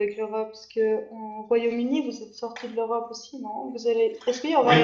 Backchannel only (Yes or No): Yes